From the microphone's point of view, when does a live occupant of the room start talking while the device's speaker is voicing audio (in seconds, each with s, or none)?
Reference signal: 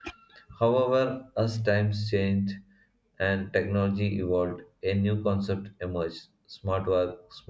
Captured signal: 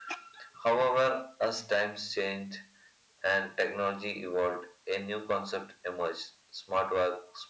none